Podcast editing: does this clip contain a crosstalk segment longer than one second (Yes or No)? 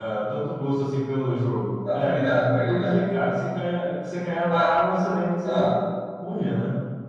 No